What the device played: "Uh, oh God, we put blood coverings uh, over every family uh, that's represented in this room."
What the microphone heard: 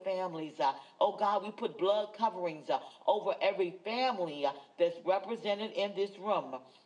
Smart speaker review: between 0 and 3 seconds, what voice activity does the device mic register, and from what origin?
echo only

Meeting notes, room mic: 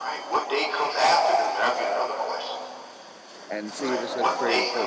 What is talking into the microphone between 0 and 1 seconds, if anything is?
echo only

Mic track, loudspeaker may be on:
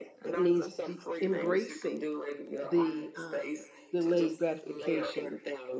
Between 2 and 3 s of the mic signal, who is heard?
both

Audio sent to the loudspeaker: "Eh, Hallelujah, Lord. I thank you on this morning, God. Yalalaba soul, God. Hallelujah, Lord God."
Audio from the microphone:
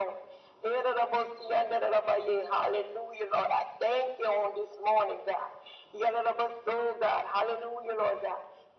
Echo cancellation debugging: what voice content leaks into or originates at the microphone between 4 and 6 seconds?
echo only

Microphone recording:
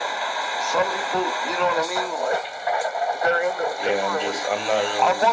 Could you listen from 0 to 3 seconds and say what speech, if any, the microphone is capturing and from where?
echo only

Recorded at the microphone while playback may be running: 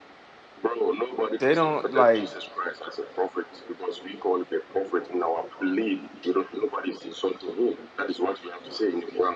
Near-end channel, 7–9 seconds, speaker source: echo only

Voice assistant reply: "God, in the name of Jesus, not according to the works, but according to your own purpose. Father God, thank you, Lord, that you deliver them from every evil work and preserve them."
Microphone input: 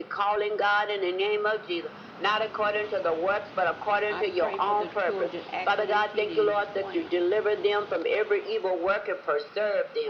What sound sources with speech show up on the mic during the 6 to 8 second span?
both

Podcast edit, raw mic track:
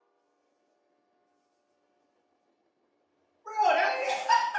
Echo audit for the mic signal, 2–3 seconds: neither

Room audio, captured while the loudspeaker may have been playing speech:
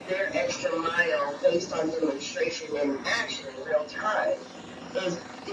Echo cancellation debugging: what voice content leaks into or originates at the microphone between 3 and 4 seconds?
echo only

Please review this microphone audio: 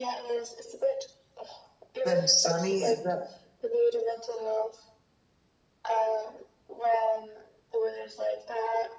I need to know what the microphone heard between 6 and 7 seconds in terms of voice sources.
echo only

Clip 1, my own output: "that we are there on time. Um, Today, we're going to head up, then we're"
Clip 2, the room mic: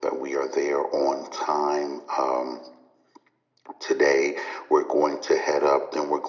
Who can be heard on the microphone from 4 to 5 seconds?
echo only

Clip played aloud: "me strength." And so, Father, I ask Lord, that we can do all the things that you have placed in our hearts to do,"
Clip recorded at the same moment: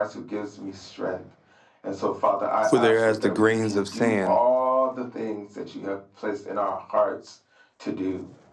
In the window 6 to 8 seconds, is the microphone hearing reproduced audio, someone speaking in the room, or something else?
echo only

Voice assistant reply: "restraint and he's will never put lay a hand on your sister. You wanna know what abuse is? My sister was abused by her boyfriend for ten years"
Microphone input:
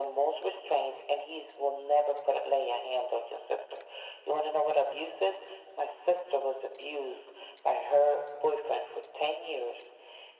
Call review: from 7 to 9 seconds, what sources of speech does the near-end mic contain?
echo only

